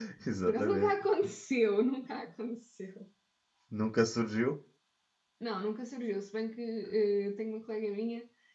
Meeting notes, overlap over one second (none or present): none